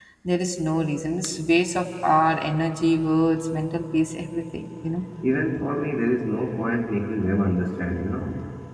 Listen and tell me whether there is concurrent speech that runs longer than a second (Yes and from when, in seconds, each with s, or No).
No